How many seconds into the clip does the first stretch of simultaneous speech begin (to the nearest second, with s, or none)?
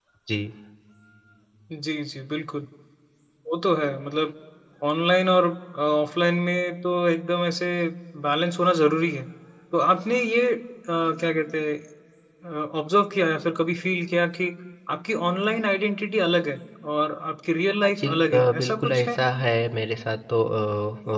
18 s